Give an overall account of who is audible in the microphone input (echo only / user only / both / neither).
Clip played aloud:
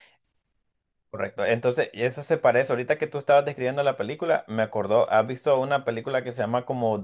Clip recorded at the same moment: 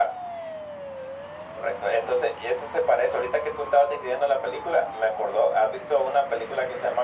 echo only